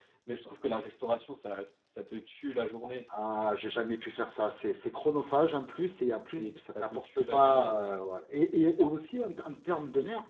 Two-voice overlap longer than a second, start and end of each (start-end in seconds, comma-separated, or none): 6.4-7.7